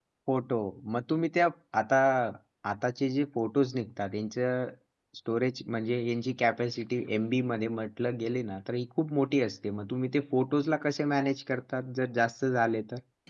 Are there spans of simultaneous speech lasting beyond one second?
No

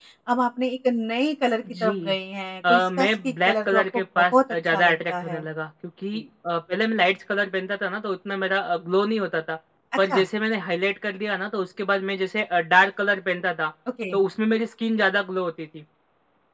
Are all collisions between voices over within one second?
No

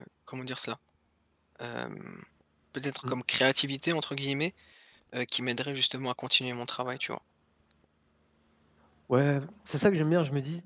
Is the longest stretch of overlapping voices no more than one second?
Yes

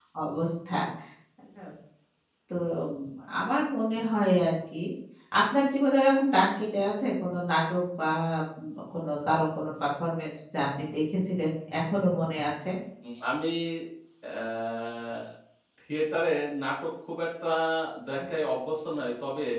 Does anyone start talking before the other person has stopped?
No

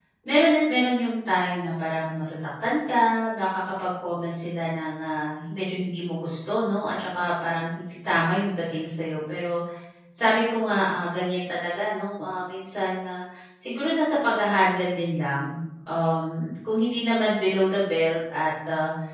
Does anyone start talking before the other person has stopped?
No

